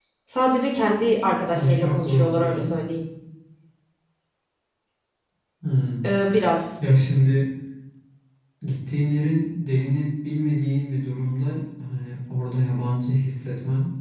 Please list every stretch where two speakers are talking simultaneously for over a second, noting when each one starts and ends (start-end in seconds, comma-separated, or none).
1.5-2.7